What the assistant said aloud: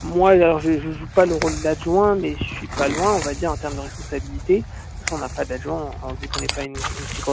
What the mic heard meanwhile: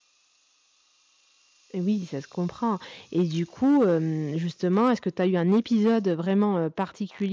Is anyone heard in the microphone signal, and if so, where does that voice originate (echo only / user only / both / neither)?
user only